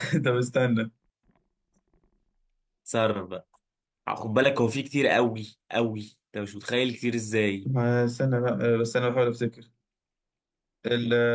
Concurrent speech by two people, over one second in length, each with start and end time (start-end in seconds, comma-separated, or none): none